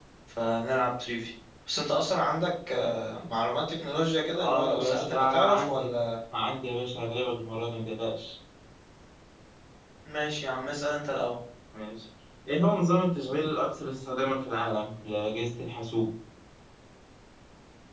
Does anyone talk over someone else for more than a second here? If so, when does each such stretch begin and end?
4.4-5.9

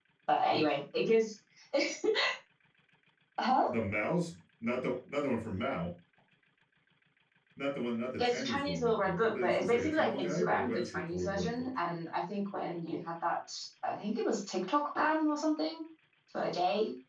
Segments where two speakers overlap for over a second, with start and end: 8.2-11.7

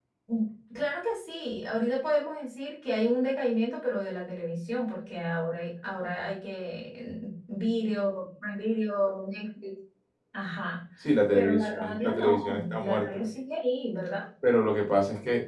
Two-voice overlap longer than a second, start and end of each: 11.3-13.3

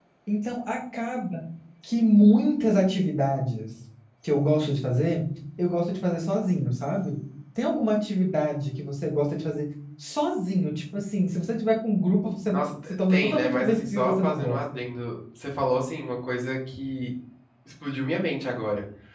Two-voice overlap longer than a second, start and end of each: 12.5-14.6

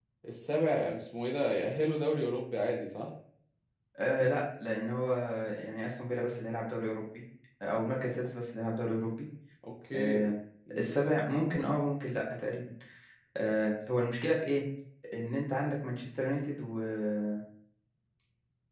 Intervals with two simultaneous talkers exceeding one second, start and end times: none

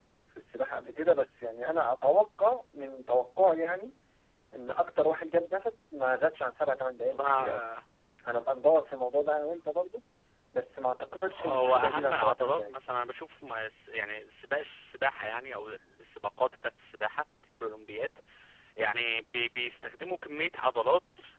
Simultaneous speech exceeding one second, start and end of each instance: 11.3-12.8

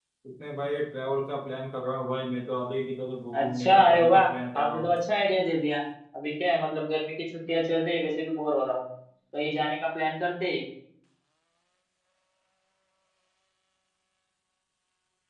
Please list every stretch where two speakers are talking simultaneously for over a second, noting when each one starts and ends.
3.3-4.9

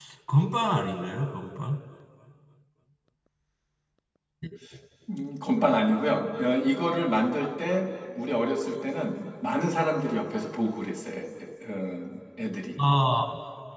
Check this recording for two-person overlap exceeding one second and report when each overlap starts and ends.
none

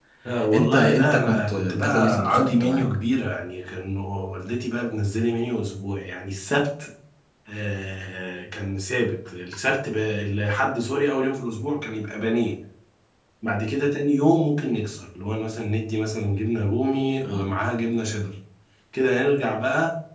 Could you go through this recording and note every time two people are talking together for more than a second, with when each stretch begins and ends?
0.5-2.8

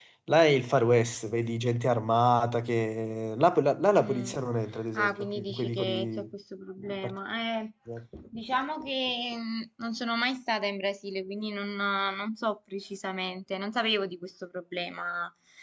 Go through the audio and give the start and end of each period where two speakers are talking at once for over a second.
4.9-6.3

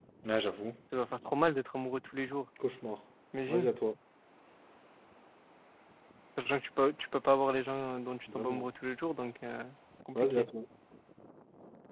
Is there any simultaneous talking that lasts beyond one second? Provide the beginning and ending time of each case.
none

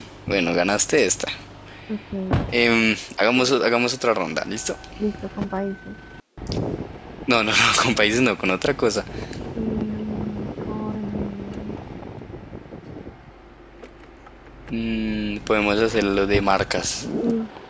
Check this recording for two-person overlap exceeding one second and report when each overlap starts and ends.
none

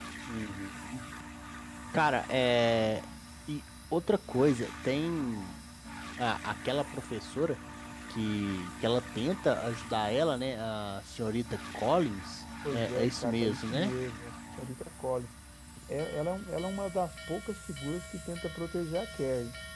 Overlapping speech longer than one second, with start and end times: 12.7-13.9

